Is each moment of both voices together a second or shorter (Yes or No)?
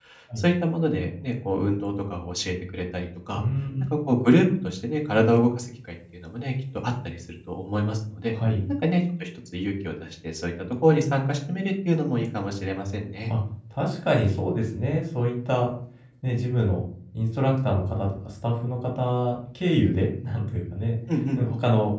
Yes